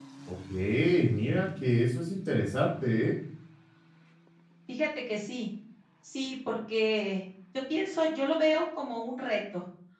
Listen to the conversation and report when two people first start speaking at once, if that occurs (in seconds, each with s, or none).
none